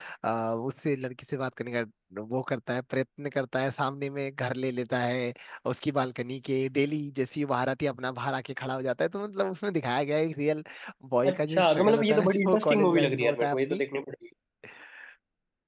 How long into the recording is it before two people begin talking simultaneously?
11 s

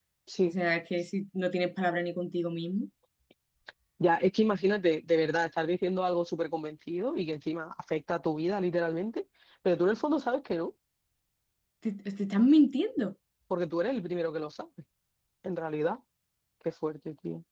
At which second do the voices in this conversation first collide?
none

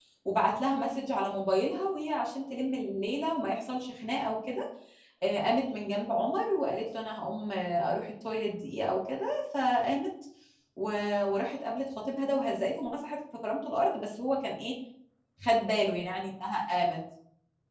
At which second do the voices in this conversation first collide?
none

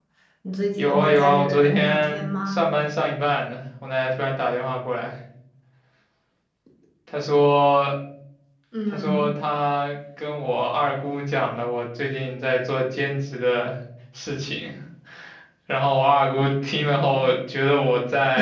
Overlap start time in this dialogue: 1 s

